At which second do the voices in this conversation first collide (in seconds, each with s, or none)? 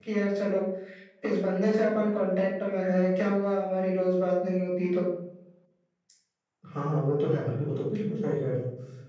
none